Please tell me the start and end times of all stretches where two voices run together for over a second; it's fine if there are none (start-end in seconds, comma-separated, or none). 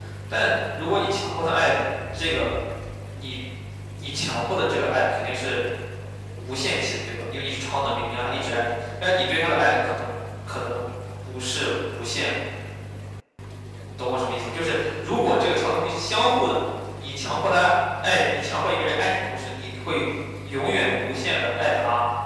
none